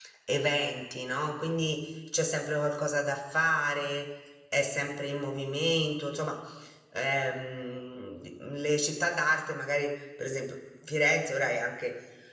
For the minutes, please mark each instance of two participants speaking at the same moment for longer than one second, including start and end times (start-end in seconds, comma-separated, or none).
none